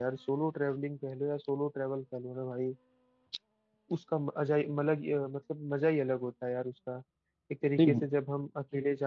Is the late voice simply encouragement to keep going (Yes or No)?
Yes